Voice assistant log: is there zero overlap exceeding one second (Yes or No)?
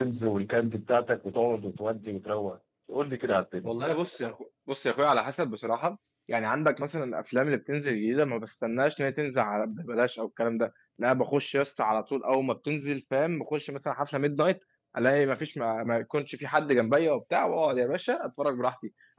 Yes